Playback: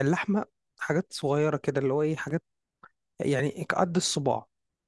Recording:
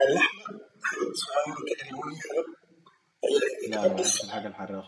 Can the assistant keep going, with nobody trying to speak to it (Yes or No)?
No